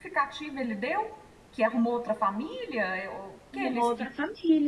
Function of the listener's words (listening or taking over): taking over